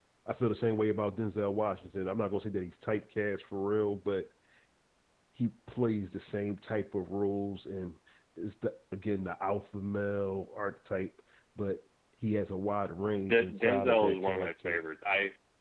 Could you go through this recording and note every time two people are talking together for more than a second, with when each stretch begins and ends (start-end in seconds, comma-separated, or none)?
13.3-14.7